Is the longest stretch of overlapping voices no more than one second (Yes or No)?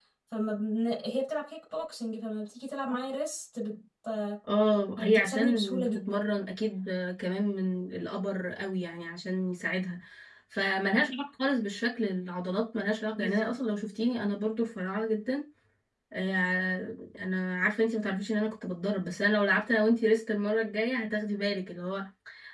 No